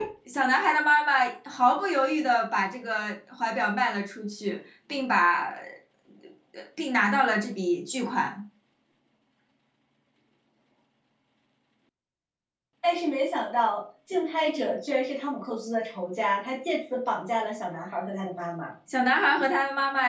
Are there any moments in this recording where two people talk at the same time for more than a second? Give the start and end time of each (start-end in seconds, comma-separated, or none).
none